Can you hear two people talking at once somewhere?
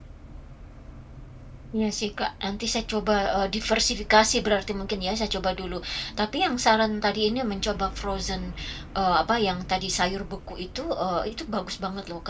No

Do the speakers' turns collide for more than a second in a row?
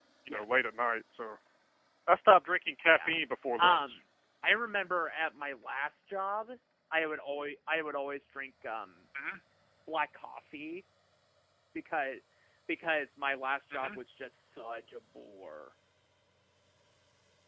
No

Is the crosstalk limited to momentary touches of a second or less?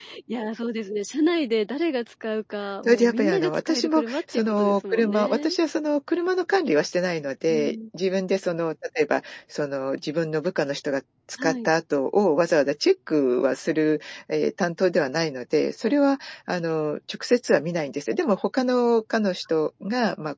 No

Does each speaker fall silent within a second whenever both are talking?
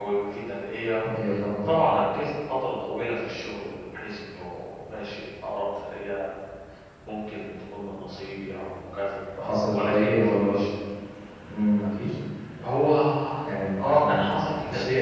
No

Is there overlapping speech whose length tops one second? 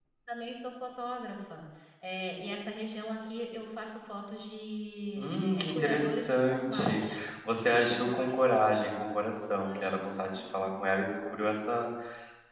Yes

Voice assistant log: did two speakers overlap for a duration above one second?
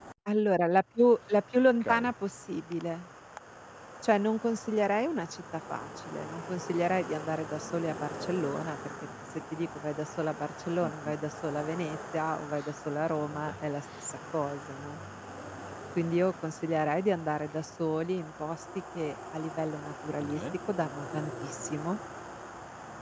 No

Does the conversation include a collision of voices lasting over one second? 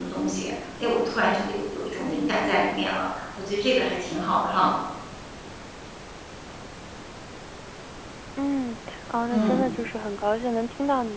No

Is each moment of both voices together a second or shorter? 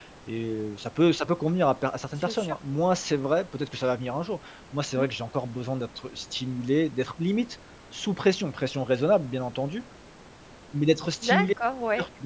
Yes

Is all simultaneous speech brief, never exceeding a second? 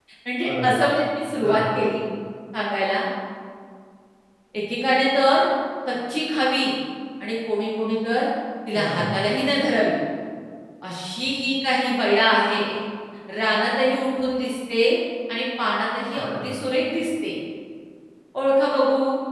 Yes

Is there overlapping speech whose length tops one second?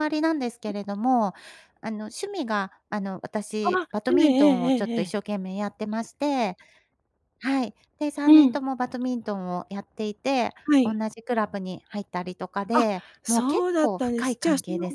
Yes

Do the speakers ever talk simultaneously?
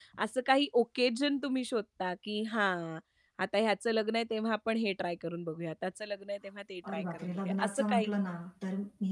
Yes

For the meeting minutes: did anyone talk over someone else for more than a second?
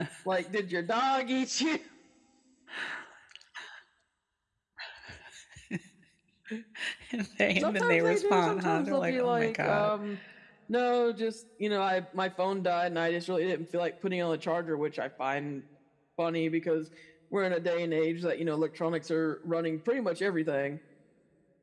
Yes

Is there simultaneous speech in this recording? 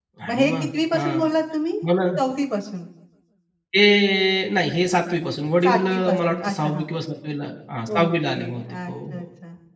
Yes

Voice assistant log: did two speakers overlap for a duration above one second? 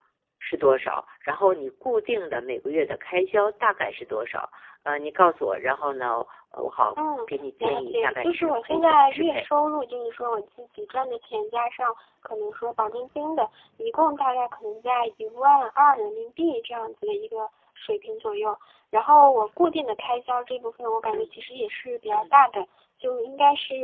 Yes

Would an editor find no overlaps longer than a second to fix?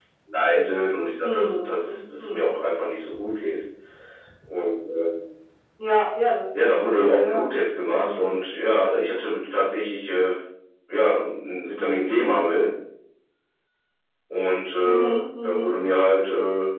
No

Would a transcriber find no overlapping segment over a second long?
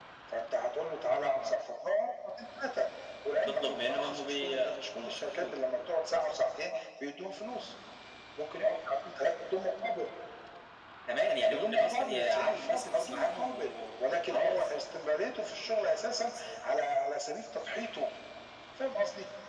No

